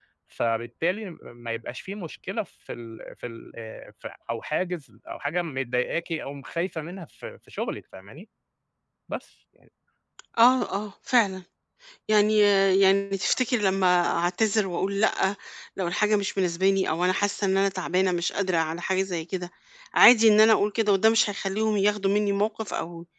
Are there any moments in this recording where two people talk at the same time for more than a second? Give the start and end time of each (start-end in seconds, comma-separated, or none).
none